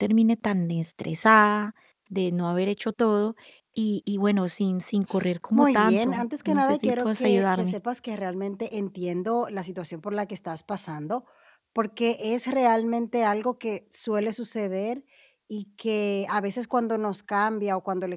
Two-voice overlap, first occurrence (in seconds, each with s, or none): 5.5 s